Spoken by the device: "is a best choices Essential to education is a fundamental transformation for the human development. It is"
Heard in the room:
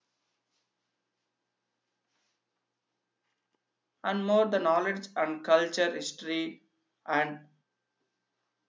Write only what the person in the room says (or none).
and more the knowledge and culture history and